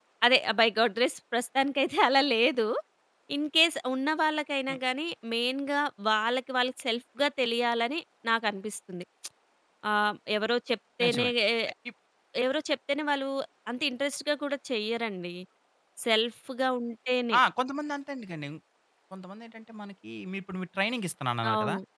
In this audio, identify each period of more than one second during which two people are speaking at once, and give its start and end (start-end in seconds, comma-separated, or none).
none